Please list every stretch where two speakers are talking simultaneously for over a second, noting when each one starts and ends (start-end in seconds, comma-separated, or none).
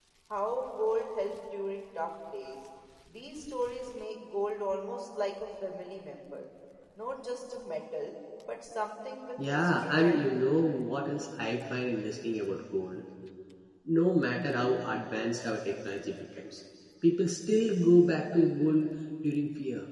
9.4-10.6